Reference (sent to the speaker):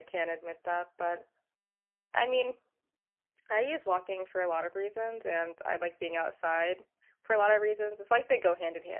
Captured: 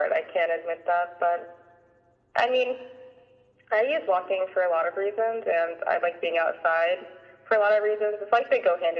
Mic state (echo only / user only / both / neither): echo only